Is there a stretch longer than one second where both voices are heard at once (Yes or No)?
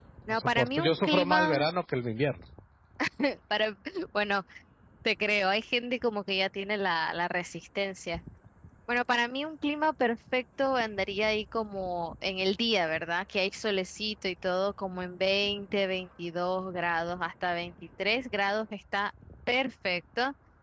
Yes